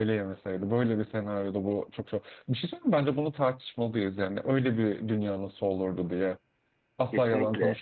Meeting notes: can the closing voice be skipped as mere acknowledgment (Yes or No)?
Yes